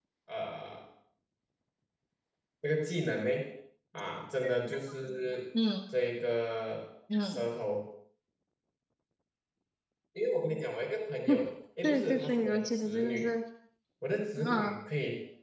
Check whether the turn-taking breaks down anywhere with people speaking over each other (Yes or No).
Yes